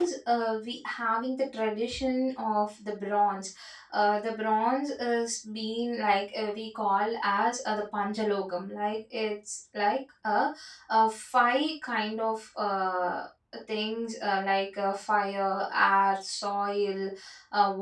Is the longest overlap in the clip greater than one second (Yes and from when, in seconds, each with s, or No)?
No